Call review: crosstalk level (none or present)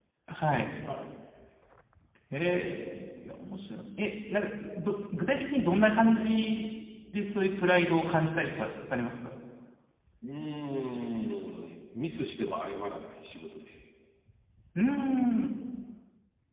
none